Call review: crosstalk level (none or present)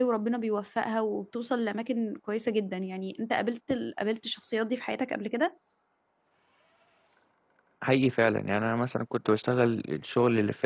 none